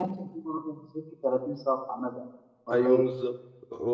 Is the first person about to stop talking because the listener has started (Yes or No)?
Yes